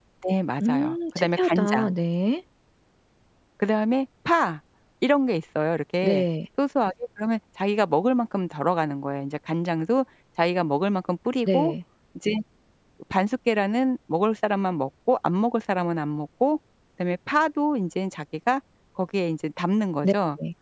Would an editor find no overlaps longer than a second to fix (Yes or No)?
No